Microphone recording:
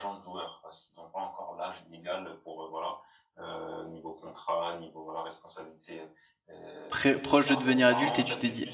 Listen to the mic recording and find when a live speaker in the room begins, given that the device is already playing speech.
6.9 s

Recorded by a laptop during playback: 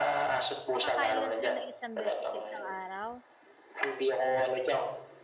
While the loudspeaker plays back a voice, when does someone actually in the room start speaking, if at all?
0.7 s

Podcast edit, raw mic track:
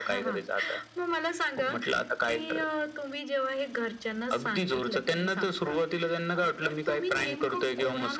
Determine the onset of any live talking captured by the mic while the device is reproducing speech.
none

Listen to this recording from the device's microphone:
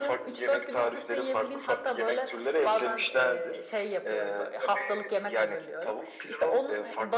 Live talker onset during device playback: none

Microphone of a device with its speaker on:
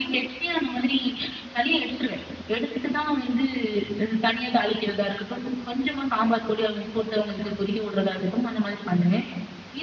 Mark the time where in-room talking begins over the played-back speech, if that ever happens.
none

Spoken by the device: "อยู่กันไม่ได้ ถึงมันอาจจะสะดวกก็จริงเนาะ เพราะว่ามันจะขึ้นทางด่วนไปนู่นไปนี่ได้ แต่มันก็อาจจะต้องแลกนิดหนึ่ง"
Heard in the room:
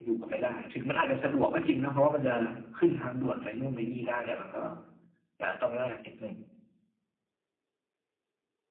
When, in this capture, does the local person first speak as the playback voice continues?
none

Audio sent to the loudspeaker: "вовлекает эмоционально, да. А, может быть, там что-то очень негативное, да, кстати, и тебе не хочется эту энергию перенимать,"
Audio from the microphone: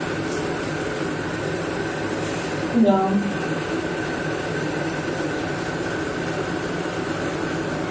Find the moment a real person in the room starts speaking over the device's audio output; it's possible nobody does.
2.7 s

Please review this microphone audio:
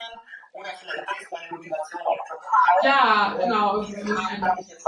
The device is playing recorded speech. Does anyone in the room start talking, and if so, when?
2.8 s

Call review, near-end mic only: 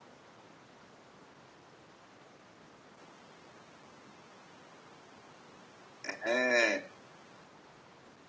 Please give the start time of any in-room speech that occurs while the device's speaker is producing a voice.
6.0 s

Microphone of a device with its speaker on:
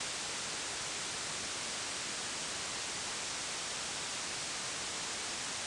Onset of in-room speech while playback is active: none

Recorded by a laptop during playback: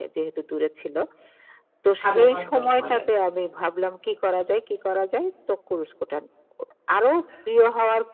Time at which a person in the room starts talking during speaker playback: 2.1 s

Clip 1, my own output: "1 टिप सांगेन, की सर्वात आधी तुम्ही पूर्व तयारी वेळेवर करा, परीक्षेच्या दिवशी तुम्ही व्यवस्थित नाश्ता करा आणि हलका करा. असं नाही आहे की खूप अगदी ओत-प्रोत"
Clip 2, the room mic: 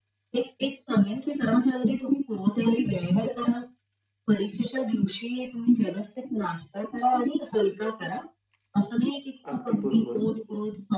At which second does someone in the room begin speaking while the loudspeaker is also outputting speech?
9.5 s

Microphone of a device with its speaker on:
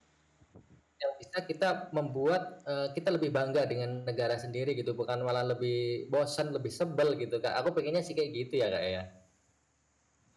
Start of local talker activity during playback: 1.0 s

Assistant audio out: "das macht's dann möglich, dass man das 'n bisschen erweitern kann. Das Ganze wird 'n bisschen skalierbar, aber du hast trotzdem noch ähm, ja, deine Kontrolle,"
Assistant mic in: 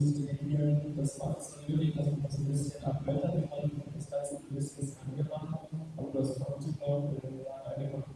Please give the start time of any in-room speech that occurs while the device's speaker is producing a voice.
none

